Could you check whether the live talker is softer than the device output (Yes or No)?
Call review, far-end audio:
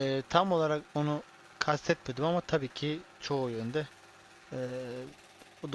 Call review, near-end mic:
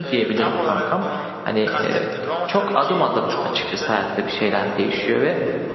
No